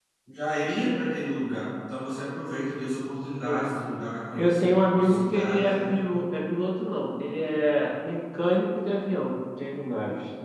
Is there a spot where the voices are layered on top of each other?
Yes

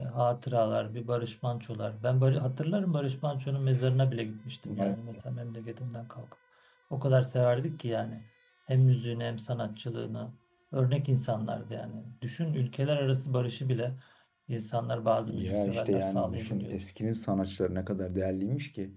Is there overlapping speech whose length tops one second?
Yes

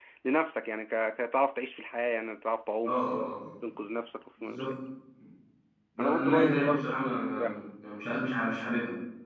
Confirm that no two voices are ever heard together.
No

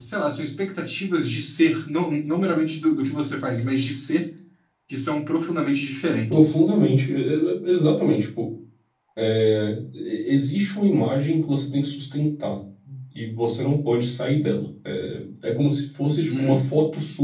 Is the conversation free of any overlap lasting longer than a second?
Yes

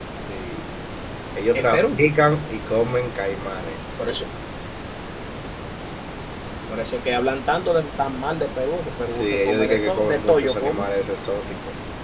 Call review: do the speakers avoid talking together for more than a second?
No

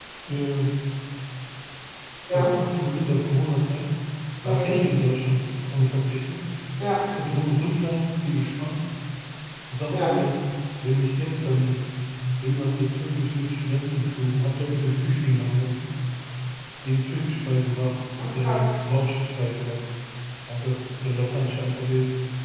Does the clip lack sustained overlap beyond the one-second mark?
Yes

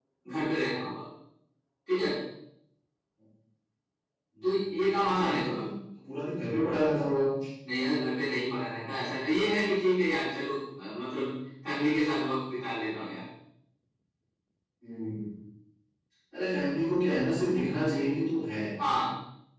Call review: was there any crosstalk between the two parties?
Yes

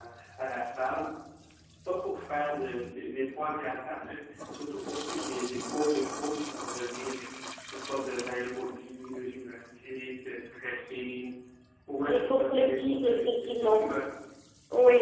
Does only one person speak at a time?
No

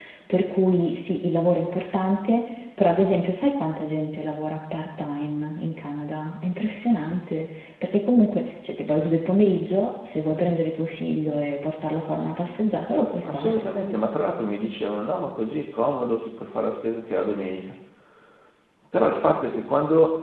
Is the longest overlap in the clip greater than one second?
No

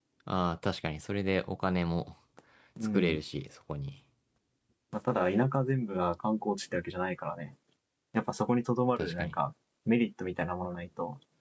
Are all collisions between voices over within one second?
Yes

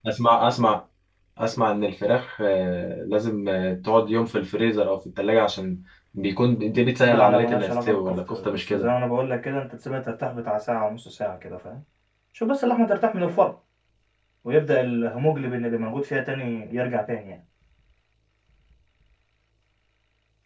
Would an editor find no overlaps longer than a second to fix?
No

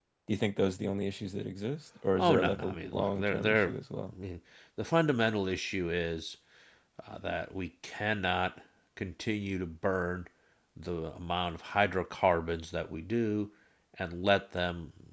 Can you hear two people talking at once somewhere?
Yes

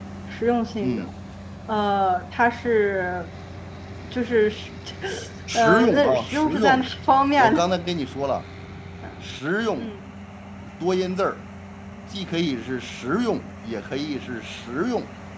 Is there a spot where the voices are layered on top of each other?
Yes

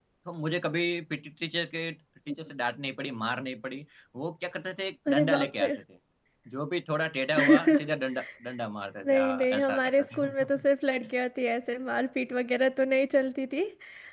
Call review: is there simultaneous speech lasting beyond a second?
Yes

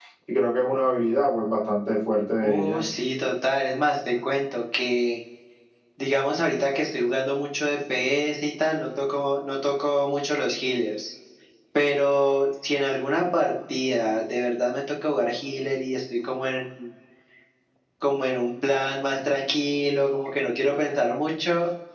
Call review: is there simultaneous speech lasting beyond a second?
No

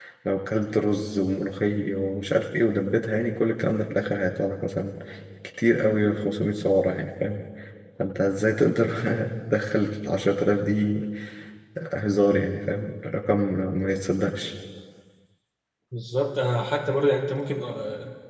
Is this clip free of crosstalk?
Yes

